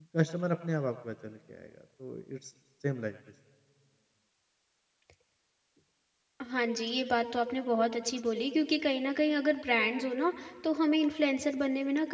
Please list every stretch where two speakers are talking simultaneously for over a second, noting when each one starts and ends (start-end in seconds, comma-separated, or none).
none